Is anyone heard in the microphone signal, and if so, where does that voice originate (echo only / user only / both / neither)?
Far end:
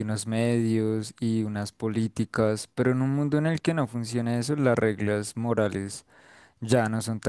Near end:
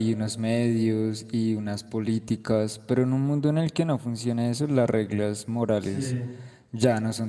both